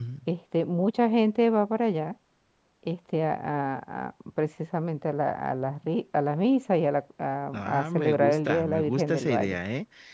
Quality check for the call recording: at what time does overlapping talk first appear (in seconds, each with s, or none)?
7.5 s